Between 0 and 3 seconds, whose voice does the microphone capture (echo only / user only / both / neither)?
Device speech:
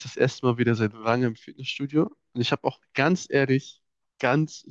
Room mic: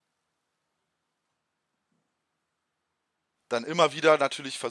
neither